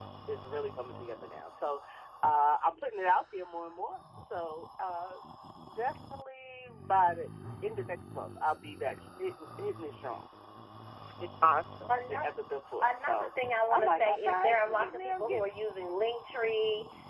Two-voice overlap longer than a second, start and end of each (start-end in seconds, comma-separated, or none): 12.8-15.4